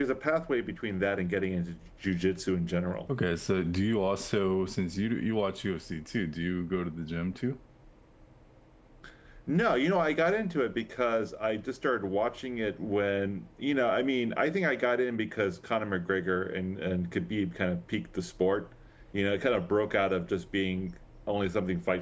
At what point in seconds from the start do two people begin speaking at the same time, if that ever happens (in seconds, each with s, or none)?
none